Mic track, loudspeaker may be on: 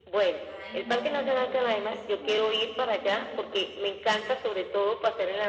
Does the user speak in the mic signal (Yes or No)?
Yes